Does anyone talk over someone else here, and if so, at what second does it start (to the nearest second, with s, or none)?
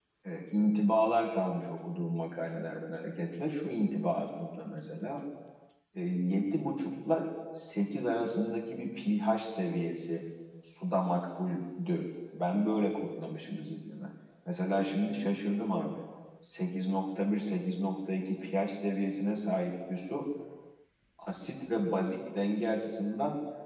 none